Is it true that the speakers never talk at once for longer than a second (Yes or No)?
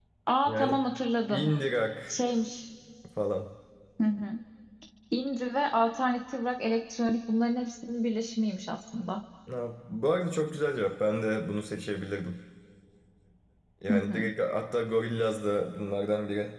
Yes